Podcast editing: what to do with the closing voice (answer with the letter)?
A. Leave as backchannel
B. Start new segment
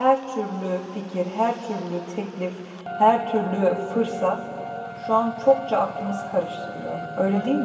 B